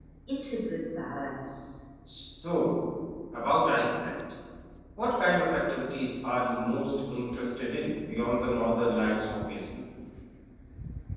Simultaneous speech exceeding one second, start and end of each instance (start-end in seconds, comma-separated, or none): none